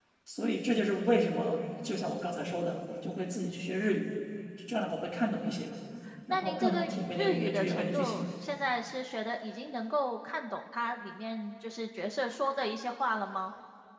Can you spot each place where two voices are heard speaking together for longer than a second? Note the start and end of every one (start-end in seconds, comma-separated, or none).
6.3-8.3